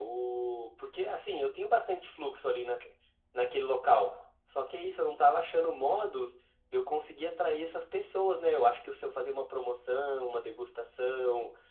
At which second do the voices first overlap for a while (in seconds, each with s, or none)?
none